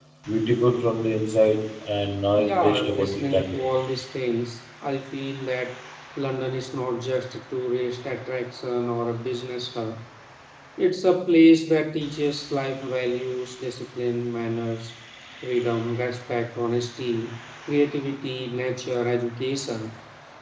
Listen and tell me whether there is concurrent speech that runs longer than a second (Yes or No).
Yes